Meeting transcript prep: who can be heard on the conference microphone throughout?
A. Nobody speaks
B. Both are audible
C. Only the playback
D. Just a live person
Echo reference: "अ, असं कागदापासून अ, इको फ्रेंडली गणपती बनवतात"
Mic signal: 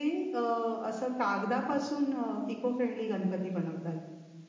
C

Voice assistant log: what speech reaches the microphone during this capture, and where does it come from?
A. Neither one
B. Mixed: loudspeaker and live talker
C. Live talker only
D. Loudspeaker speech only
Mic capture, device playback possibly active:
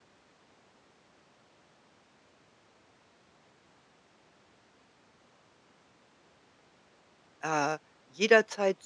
C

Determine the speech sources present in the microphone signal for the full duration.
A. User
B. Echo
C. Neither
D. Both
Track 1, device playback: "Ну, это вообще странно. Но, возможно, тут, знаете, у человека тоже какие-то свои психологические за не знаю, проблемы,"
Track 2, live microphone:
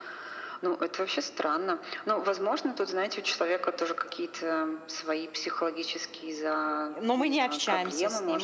D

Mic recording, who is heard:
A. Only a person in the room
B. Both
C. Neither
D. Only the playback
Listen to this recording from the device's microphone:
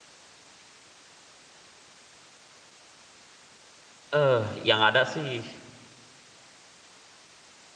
A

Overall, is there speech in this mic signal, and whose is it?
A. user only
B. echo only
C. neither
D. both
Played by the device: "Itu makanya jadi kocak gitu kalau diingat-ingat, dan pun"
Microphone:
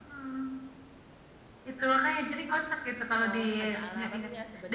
D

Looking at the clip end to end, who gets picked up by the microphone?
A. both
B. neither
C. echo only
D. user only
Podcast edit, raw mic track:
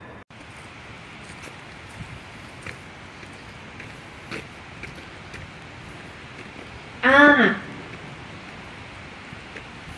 D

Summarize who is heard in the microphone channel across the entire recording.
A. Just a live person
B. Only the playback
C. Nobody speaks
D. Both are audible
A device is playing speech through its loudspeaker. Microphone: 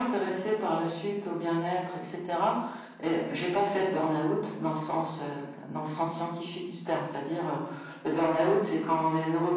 B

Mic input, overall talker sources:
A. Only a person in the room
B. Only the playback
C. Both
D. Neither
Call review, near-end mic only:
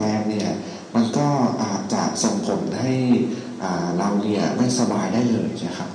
B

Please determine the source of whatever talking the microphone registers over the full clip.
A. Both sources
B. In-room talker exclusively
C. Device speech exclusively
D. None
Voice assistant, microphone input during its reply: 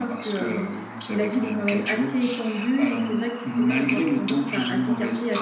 C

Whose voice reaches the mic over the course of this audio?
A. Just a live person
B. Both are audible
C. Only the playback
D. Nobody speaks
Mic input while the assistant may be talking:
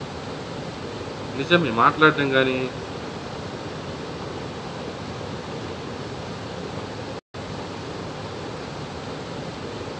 A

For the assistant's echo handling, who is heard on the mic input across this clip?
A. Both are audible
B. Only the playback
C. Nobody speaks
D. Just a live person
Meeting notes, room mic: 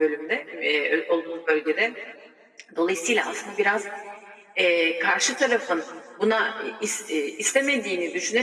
B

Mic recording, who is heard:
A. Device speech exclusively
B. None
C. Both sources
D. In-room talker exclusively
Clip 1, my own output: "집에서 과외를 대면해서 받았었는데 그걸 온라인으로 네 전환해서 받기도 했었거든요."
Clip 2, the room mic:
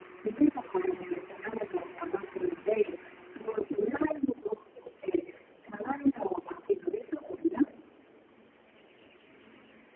A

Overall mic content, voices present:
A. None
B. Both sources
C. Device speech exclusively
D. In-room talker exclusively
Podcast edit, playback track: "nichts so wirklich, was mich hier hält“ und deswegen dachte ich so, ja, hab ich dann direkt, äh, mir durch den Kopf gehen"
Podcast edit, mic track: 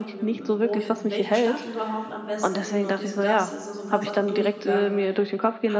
B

